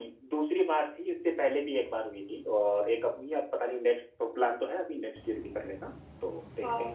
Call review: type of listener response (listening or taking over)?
taking over